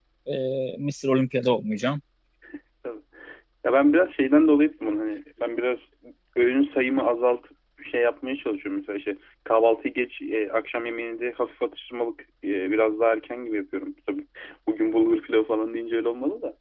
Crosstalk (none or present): none